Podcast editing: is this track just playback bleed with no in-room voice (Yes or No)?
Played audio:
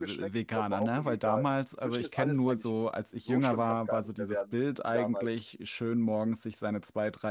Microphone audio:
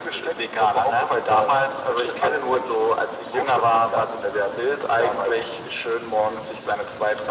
Yes